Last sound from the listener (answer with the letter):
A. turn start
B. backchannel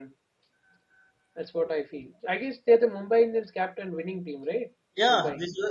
A